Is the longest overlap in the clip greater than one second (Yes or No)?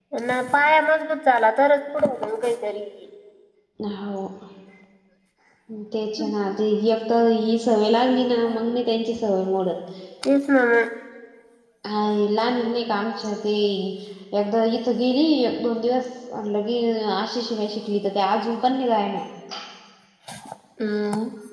No